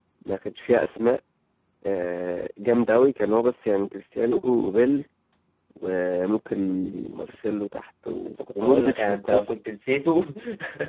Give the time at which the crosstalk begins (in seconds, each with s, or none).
8.2 s